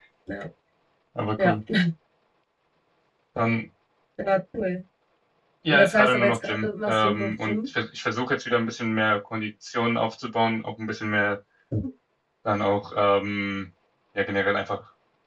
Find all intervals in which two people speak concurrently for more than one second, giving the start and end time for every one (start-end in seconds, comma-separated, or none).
5.7-7.6